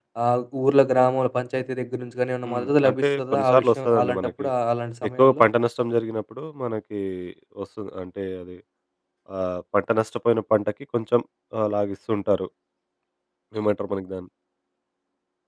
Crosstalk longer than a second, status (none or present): present